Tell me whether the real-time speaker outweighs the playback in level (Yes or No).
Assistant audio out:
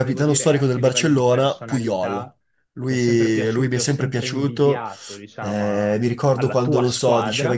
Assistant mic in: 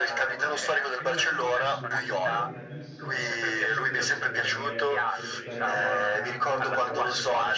No